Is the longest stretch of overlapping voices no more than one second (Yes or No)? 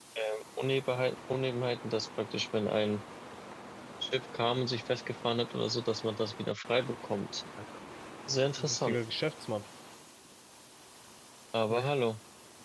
Yes